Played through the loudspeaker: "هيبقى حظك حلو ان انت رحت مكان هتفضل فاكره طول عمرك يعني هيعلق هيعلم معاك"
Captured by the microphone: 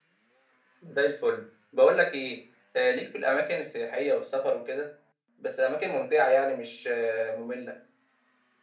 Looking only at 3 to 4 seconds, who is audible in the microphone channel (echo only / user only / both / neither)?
user only